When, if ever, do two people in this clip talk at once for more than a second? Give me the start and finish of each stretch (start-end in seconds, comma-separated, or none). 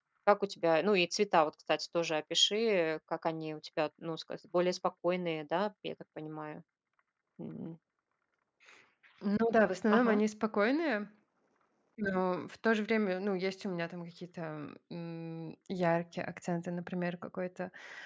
none